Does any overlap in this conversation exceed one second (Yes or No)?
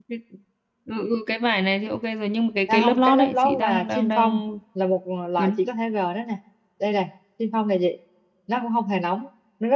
Yes